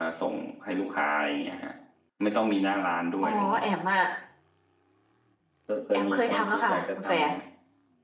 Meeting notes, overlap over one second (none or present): present